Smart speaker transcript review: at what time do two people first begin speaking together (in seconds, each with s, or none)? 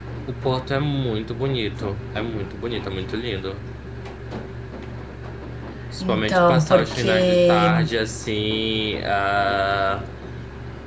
6.0 s